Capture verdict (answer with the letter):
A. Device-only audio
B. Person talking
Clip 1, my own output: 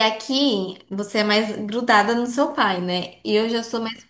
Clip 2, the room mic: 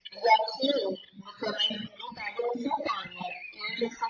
A